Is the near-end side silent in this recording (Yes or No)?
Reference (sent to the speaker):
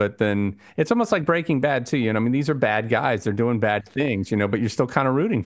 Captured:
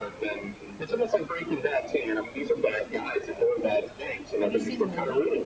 No